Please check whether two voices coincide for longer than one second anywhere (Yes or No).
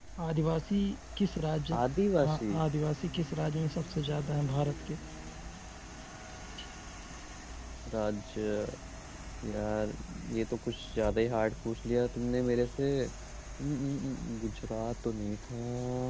No